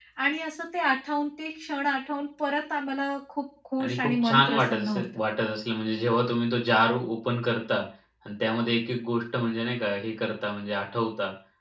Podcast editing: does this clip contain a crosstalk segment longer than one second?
Yes, from 3.8 s

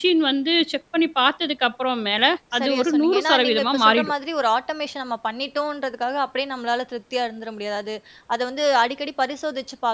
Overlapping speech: Yes, from 2.5 s

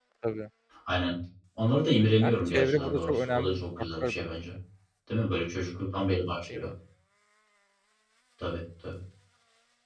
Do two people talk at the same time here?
Yes, from 2.2 s

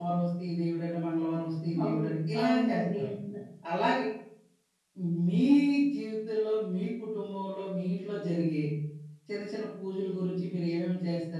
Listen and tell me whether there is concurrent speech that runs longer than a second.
Yes, from 1.7 s

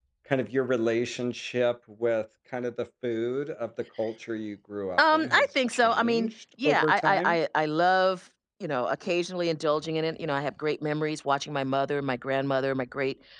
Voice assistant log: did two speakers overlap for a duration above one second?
Yes, from 5.0 s

